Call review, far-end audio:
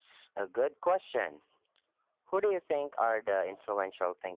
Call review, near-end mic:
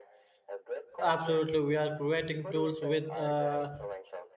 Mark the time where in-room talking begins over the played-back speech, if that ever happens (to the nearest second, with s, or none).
1 s